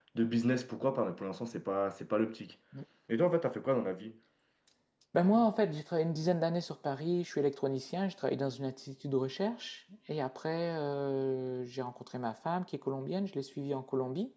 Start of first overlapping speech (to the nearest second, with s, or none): none